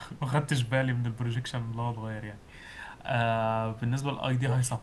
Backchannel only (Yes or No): Yes